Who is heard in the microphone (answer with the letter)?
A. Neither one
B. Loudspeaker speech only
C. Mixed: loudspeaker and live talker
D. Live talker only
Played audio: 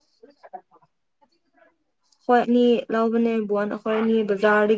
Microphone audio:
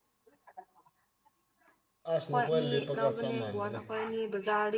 C